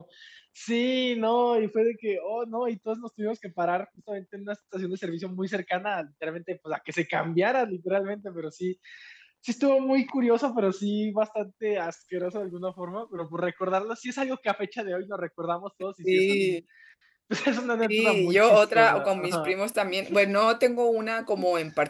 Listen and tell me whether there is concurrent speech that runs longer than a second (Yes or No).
Yes